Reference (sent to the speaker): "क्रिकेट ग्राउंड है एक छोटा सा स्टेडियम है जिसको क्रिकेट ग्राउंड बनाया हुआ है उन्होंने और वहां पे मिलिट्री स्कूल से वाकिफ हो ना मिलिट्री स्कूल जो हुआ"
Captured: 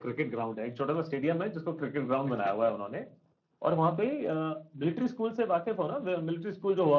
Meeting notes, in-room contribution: present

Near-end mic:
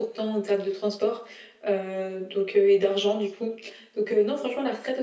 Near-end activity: none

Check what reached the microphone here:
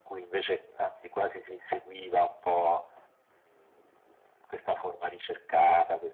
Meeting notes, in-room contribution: none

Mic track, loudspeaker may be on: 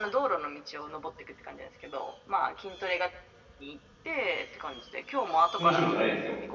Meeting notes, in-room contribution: present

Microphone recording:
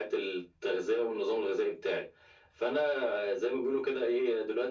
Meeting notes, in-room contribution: none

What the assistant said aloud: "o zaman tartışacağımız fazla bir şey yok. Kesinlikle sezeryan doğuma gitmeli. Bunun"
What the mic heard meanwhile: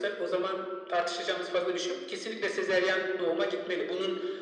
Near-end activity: none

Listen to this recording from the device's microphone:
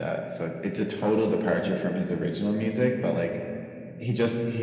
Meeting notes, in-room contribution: none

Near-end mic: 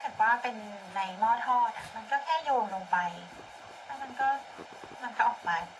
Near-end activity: none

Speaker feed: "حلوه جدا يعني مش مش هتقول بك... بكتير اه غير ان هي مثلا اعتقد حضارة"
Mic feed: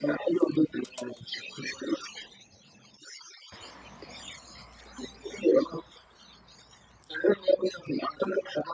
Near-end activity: none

